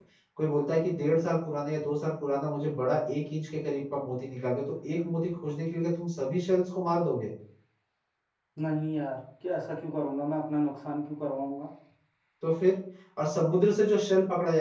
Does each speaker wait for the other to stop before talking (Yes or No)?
Yes